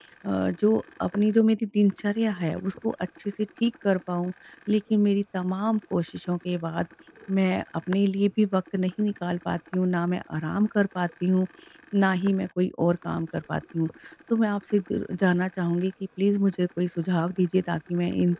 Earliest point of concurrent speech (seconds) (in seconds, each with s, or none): none